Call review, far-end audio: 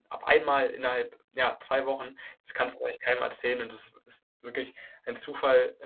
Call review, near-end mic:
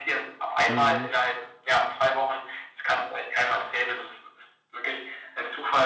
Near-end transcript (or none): Mhm,